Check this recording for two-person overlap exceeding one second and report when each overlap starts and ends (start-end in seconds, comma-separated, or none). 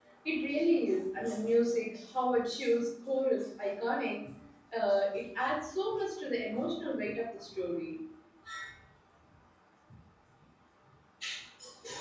none